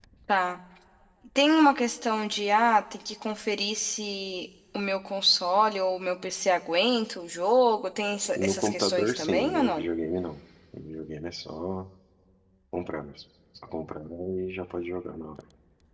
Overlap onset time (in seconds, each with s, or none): 8.4 s